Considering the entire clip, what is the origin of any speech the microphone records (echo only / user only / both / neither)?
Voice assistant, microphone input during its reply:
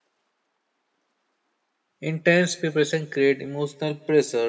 user only